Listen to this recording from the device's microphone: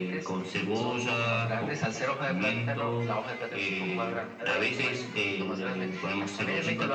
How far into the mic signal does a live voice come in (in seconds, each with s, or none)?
none